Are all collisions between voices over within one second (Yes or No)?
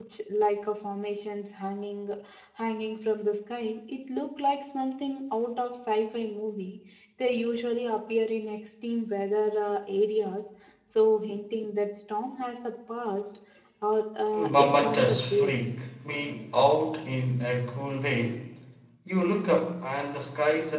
No